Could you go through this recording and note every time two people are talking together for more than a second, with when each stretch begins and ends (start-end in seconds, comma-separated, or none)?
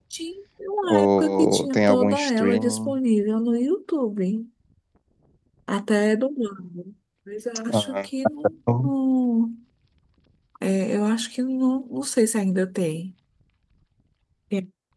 0.8-3.0